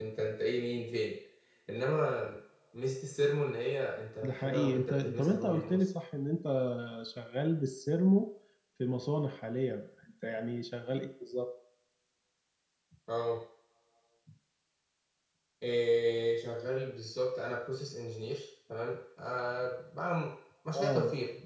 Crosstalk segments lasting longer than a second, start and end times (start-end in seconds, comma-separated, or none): 4.2-5.8